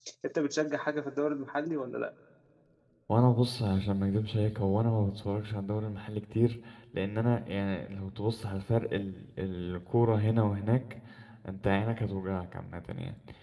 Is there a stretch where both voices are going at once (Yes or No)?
No